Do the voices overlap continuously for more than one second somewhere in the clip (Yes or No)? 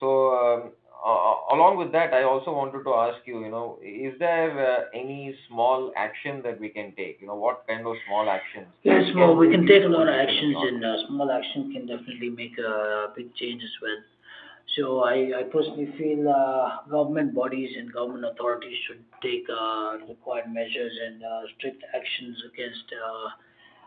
Yes